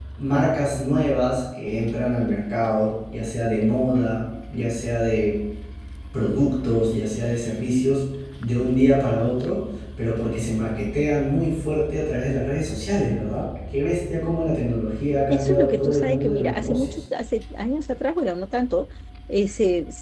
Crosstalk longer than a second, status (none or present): present